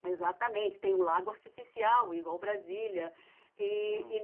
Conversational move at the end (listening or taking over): listening